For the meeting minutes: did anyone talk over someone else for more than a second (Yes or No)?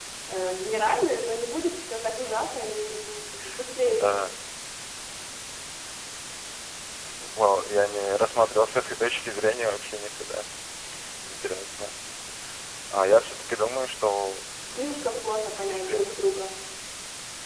Yes